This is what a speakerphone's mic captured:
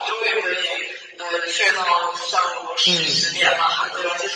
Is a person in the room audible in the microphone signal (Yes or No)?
Yes